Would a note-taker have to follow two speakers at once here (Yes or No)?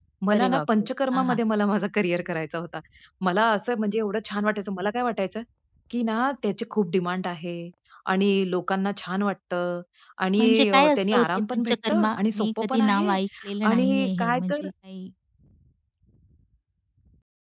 Yes